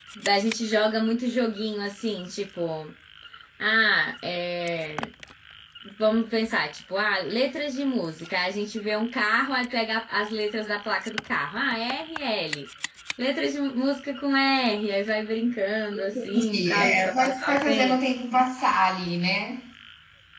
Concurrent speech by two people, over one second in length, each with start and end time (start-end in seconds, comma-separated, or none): 16.1-18.0